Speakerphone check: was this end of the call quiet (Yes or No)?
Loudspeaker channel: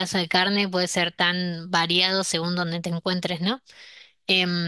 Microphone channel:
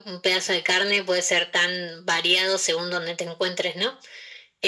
Yes